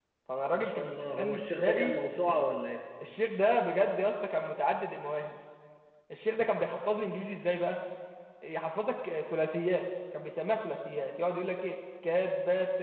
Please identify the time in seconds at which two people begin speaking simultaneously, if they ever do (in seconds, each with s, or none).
0.5 s